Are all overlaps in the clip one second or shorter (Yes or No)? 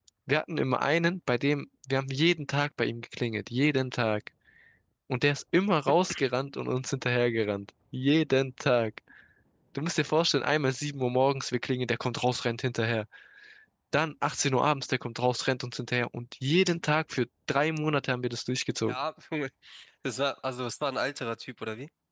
Yes